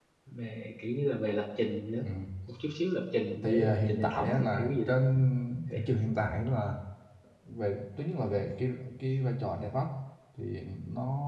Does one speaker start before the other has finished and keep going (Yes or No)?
Yes